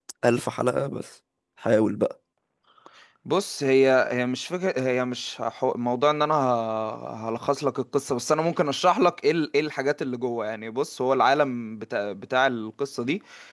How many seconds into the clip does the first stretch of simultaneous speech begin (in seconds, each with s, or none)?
none